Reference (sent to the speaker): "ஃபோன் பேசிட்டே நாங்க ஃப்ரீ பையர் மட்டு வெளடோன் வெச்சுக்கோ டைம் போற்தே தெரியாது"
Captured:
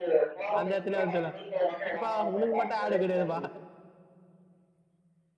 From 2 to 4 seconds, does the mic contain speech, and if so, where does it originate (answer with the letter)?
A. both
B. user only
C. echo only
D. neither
A